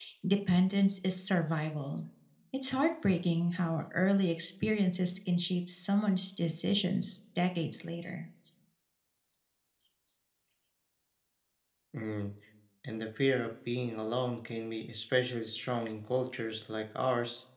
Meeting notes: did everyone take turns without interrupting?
Yes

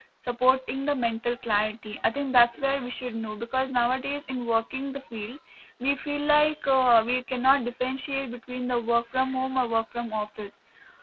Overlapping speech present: No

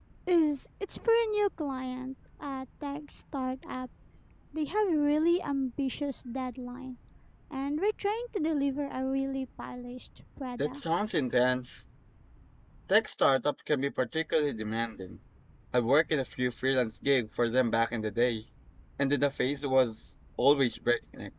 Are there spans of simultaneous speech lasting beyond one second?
No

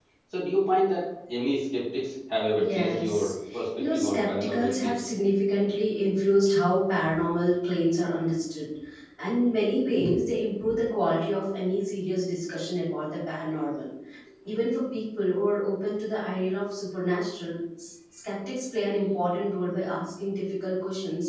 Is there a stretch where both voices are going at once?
Yes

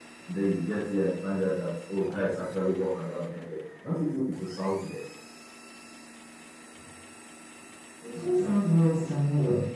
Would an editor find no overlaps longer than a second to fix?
Yes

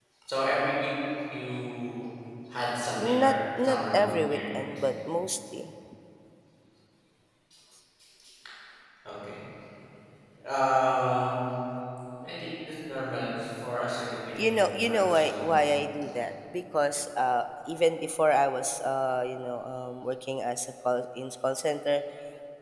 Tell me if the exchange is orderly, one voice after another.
No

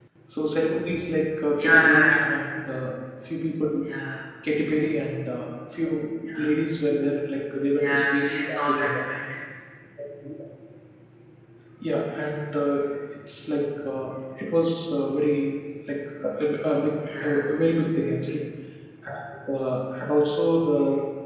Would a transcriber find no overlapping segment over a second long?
No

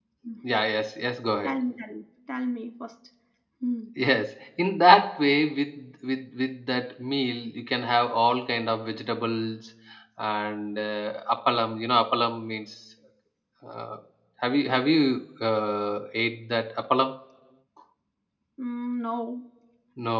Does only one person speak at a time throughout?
Yes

